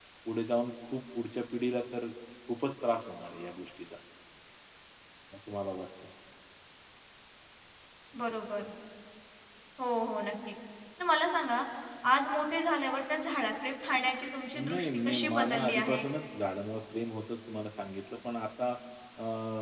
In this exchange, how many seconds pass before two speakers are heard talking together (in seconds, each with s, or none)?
14.5 s